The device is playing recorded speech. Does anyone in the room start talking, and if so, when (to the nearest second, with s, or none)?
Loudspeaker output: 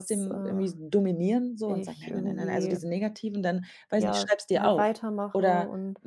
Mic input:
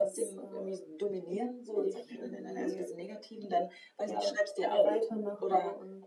none